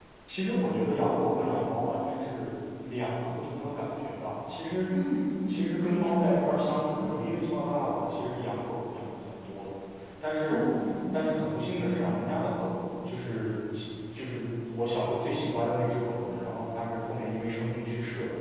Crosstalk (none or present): present